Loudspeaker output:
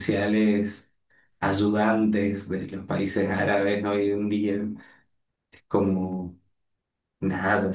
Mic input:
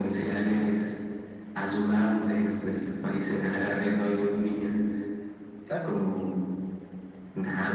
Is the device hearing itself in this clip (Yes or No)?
Yes